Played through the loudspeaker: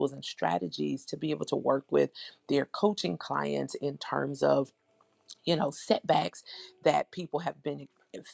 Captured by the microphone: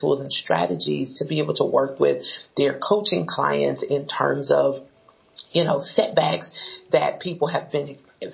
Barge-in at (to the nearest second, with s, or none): none